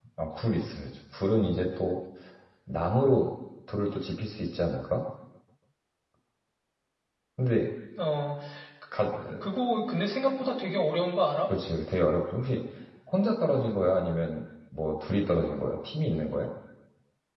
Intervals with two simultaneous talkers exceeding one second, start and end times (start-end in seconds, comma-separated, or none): none